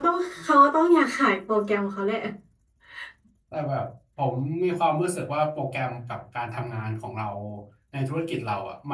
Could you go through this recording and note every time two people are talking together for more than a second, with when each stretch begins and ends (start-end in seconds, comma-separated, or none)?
none